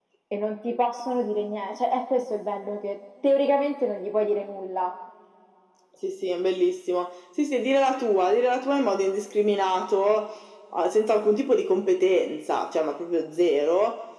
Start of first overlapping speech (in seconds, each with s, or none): none